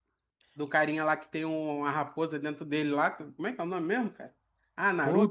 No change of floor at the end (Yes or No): No